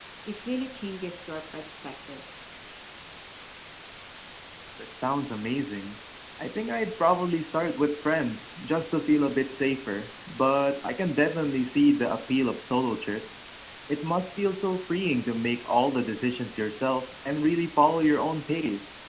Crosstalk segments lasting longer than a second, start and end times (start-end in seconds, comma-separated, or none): none